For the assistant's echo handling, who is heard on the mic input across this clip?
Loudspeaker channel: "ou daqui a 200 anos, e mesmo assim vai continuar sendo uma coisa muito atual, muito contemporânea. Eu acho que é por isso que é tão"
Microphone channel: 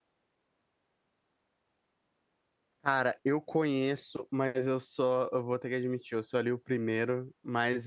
user only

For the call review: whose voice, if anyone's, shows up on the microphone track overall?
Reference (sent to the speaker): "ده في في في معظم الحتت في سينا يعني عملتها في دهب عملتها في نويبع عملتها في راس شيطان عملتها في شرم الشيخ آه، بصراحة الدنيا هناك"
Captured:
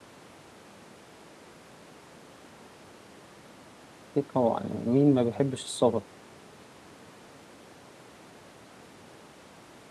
user only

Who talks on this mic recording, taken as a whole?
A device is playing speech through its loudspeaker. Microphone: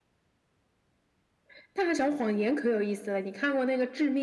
echo only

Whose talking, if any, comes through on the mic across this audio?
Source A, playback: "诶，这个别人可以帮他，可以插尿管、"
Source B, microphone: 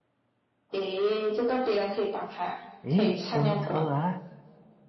both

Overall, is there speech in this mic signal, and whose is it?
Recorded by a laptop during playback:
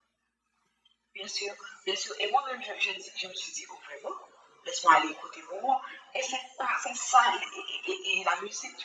echo only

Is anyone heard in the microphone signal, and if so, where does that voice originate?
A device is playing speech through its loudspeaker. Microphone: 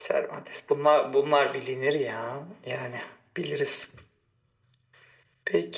echo only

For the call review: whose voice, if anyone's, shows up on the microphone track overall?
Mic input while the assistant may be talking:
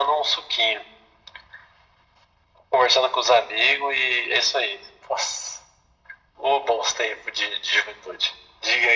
echo only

